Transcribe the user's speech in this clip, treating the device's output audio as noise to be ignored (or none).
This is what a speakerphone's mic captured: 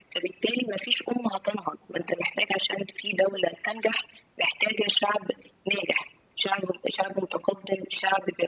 none